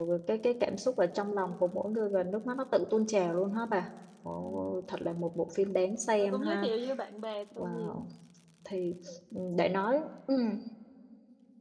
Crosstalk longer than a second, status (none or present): none